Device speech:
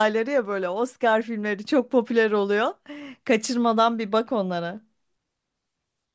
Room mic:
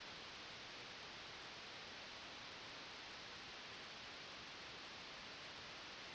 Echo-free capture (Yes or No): Yes